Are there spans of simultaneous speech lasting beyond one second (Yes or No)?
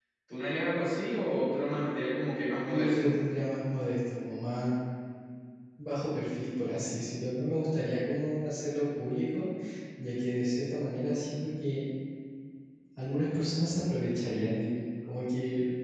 No